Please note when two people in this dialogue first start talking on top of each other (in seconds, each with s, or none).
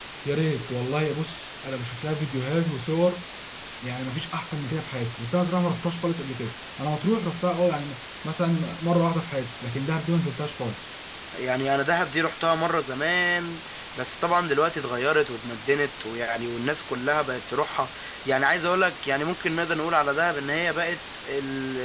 none